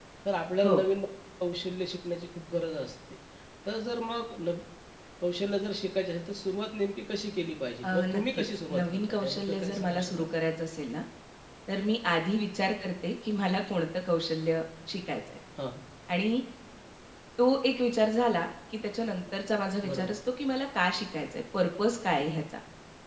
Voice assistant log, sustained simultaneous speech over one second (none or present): present